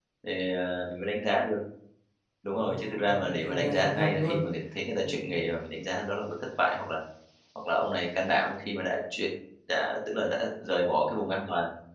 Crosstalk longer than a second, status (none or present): present